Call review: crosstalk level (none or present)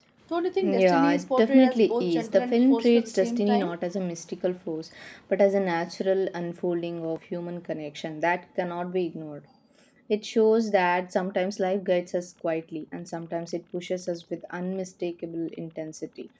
present